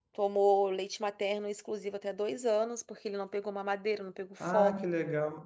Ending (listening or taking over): taking over